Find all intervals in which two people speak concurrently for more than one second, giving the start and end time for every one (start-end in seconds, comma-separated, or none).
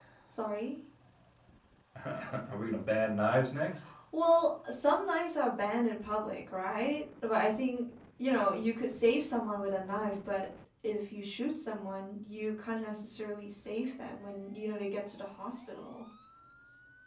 none